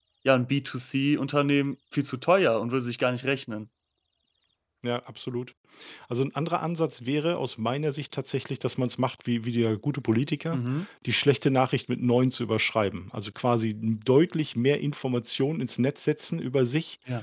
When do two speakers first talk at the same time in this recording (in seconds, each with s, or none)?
none